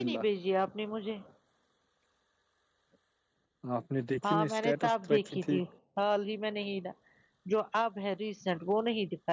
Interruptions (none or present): present